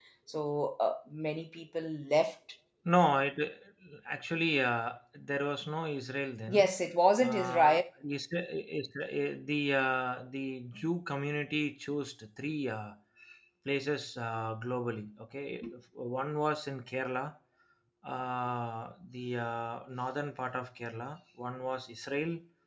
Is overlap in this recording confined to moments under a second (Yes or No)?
Yes